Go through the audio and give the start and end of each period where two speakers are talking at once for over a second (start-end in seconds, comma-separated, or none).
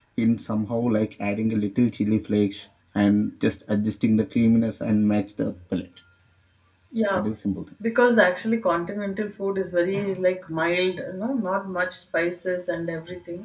none